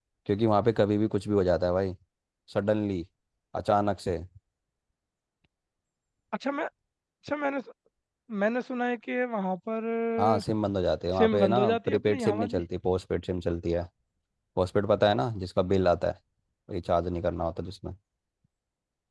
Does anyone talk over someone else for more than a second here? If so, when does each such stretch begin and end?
11.2-12.6

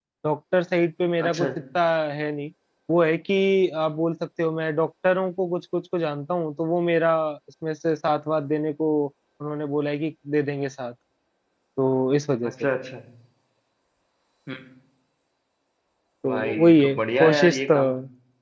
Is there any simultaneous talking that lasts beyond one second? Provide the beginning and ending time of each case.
16.3-17.8

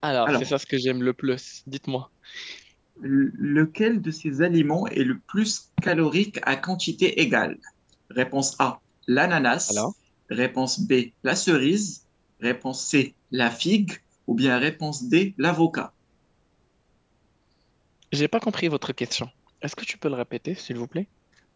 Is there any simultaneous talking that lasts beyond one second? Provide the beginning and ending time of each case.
none

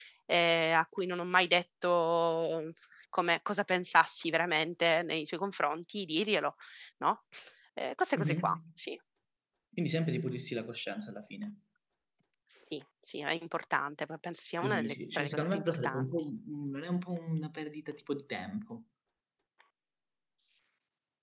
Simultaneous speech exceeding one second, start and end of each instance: 14.6-16.1

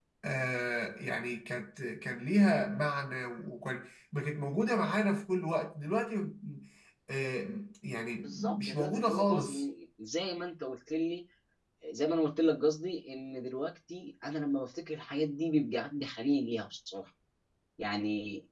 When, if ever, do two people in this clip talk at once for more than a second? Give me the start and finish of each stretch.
8.2-9.6

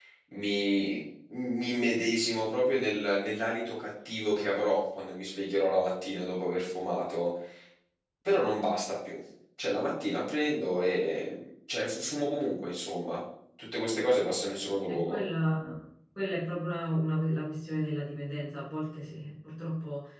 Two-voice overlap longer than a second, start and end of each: none

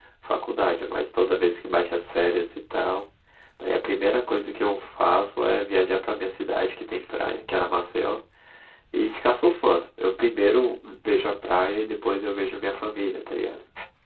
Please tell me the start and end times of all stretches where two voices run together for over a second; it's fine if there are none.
none

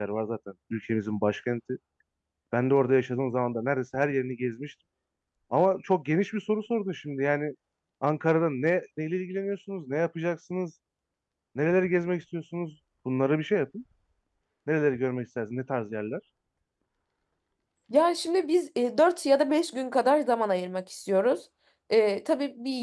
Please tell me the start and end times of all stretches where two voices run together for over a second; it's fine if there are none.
none

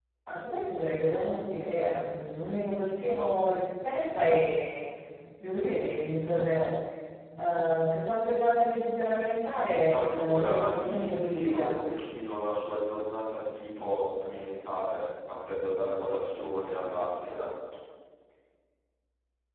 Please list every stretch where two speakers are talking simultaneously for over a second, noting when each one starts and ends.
9.9-11.7

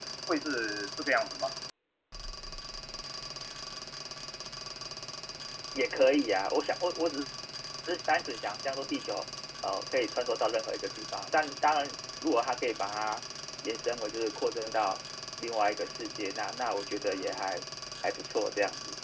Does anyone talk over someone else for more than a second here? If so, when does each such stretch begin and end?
none

